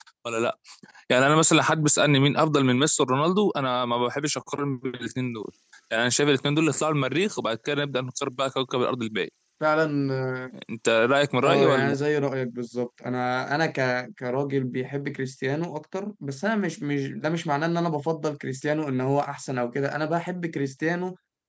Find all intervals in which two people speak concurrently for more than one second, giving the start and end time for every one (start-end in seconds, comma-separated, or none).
none